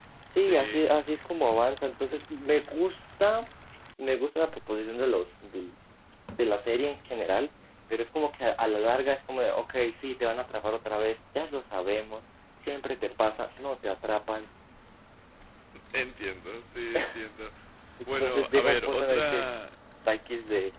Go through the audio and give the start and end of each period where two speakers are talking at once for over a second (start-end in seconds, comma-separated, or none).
18.2-19.6